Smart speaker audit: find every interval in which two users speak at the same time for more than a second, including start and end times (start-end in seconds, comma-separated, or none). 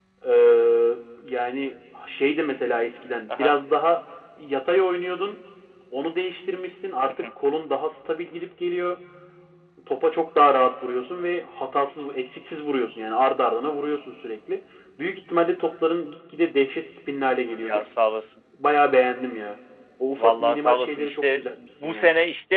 20.2-21.4